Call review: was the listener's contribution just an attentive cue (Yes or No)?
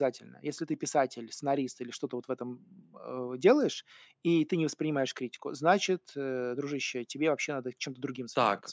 No